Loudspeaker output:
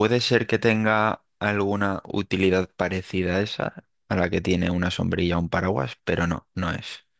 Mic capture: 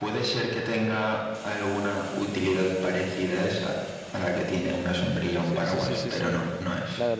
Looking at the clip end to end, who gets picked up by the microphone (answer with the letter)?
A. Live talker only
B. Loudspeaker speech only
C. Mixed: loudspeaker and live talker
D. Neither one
C